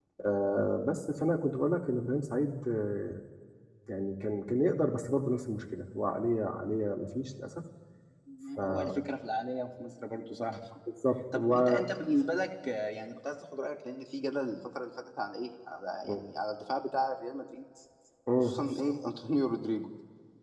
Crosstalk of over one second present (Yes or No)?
No